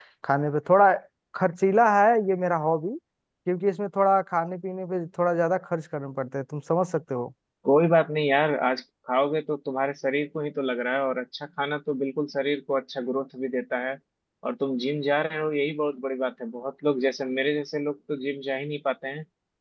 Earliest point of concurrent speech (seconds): none

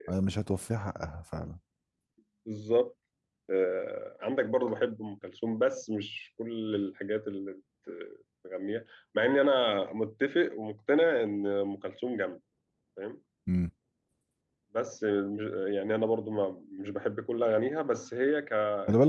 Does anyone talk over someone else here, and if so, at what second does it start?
none

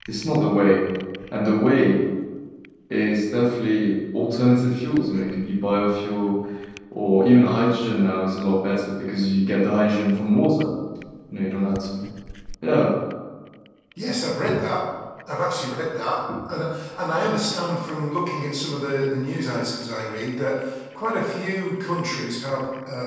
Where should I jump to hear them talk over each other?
none

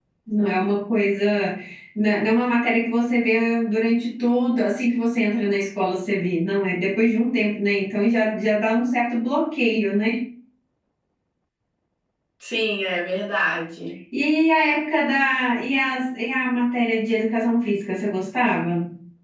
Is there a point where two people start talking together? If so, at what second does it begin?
none

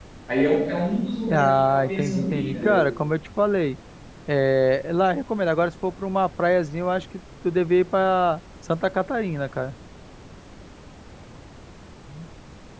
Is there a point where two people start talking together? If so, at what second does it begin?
1 s

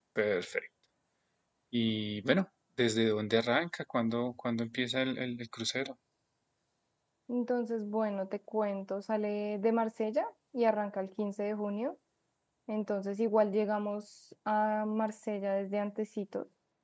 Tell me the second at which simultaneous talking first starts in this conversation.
none

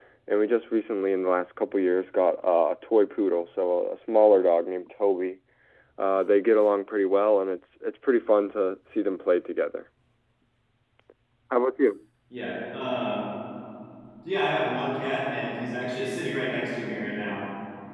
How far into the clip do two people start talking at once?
none

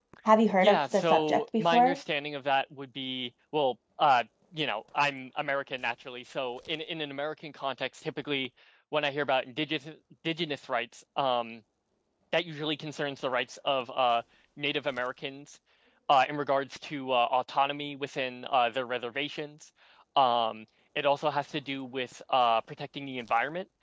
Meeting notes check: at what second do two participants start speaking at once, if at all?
1 s

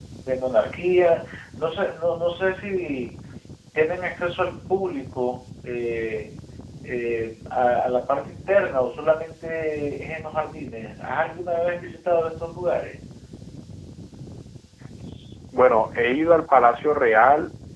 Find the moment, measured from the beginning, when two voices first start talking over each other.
none

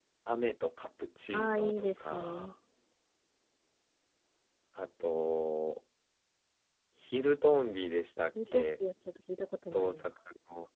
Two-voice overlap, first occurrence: 1 s

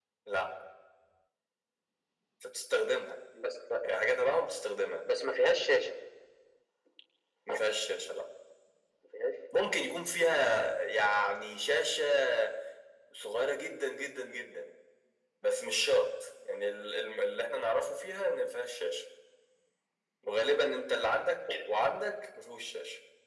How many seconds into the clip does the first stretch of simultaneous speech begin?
none

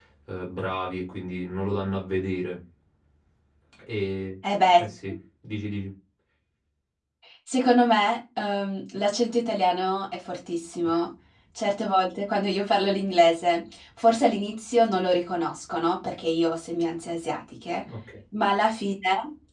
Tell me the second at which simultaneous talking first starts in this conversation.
none

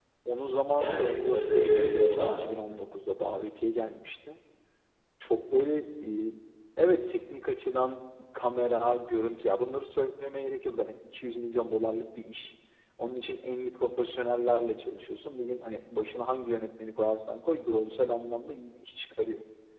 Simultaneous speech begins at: 1 s

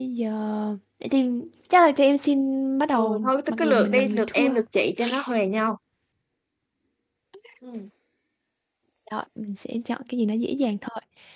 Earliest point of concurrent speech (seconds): 3 s

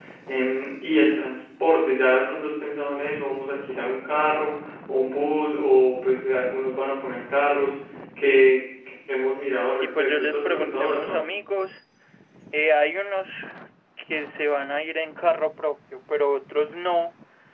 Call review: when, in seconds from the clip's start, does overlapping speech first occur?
10 s

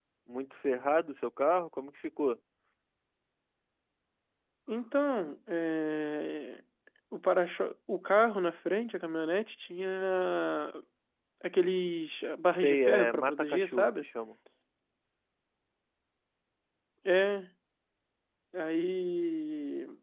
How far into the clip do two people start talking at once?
13 s

